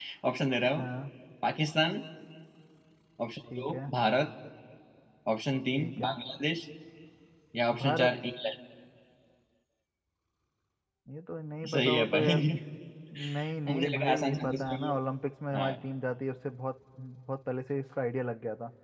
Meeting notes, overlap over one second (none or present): present